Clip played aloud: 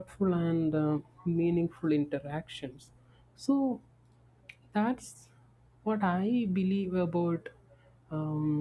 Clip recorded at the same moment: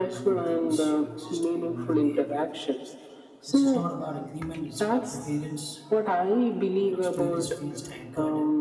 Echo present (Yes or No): Yes